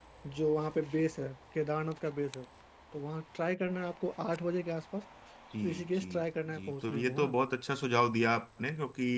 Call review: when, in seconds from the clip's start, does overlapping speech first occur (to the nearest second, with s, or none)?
6 s